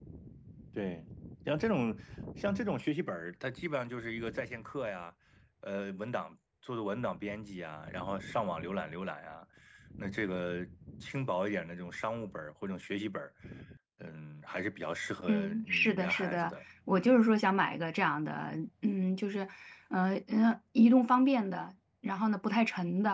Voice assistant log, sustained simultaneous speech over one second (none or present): present